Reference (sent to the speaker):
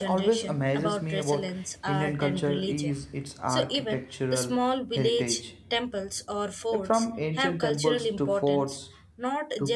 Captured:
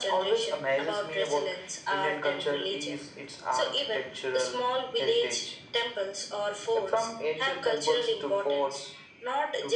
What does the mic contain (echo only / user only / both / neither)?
echo only